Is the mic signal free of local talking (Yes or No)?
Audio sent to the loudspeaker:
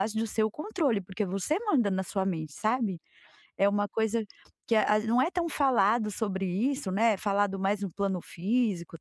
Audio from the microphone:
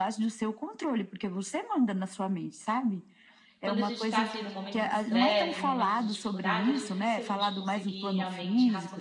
No